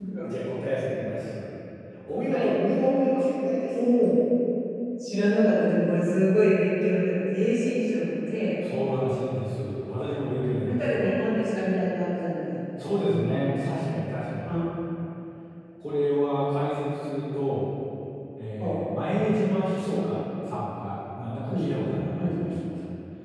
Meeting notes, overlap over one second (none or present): none